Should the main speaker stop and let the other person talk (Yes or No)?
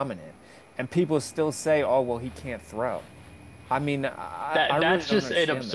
Yes